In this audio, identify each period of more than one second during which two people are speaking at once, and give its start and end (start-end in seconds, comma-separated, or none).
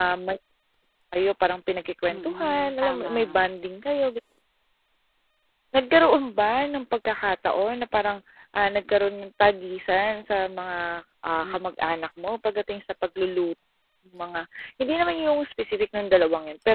2.1-3.4